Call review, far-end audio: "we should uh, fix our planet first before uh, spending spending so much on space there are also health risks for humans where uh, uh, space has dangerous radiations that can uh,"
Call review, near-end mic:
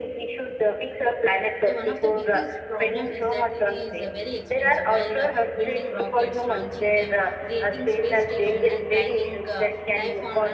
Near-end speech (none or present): present